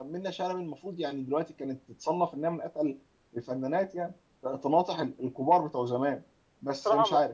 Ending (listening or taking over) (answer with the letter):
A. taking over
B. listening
A